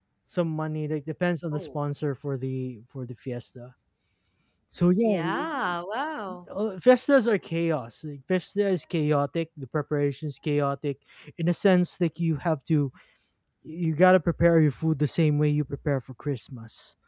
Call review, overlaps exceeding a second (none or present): none